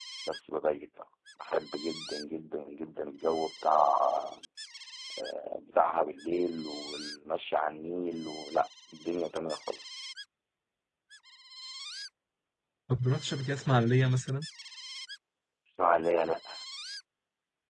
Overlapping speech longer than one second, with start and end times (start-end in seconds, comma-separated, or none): none